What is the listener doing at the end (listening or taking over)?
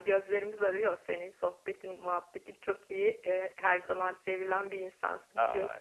taking over